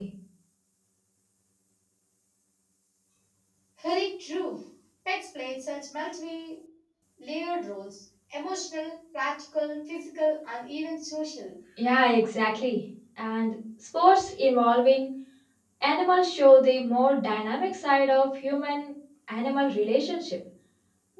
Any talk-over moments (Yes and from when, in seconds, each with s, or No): No